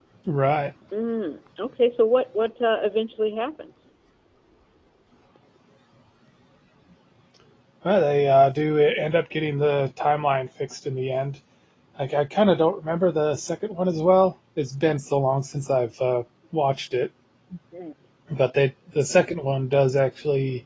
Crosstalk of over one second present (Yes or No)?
No